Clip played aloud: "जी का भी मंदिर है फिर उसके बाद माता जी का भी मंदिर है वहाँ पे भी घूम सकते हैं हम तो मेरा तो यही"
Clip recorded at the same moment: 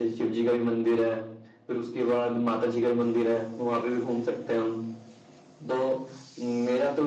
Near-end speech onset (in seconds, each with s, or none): none